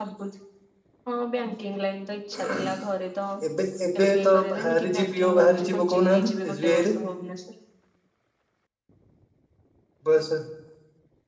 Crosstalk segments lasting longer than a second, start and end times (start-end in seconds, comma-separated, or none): 4.0-6.9